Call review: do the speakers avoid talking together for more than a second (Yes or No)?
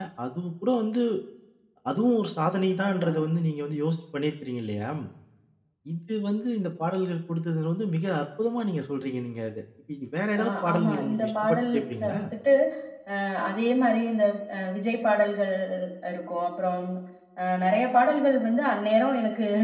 No